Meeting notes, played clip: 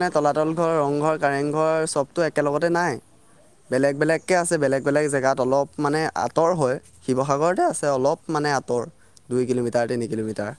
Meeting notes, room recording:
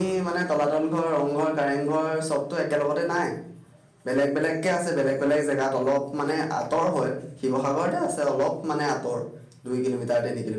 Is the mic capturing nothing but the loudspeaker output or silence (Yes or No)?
Yes